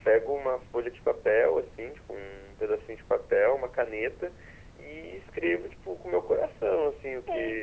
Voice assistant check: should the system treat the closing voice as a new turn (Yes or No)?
Yes